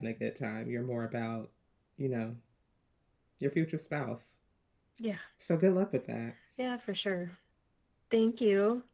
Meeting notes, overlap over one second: none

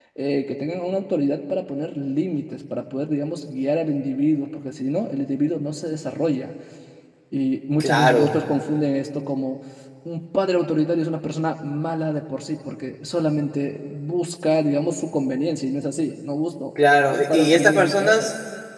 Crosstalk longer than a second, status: present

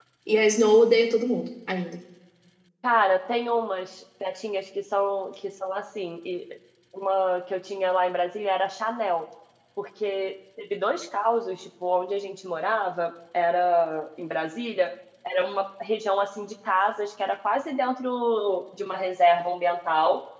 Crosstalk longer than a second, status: none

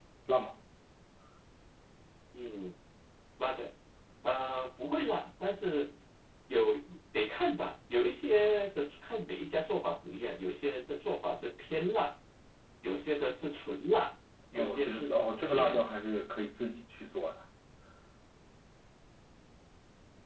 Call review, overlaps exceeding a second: present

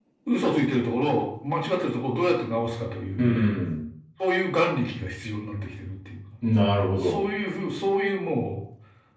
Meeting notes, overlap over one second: none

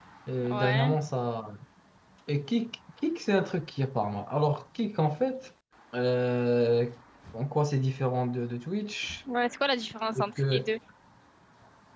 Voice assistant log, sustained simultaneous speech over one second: none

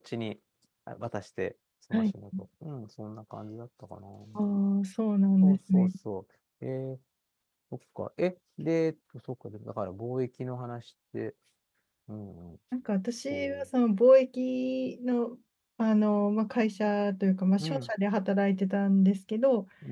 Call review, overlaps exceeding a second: none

